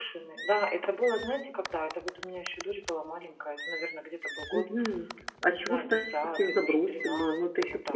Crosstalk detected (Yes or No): Yes